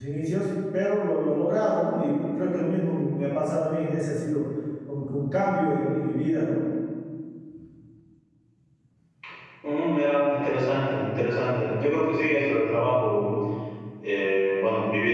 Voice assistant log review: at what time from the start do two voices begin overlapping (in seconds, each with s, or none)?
none